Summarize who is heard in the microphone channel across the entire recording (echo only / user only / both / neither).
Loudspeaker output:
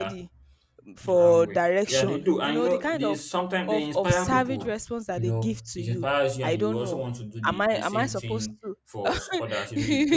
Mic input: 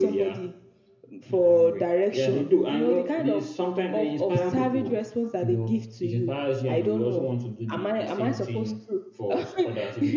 echo only